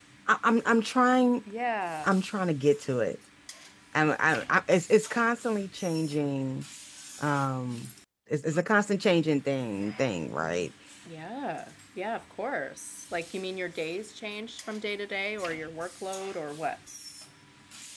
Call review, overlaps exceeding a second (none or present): none